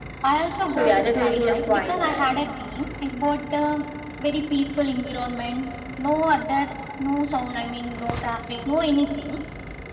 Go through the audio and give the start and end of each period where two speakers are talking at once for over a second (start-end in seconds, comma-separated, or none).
0.7-2.3